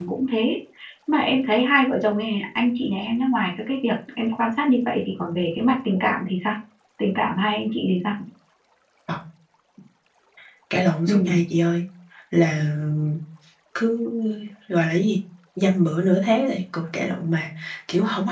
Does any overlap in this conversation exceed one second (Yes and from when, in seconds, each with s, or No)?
No